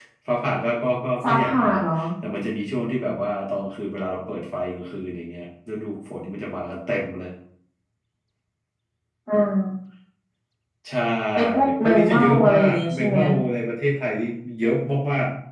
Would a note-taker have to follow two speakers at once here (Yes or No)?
Yes